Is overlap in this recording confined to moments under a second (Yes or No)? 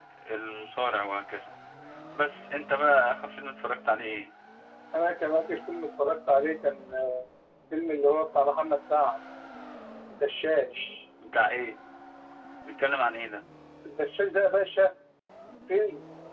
Yes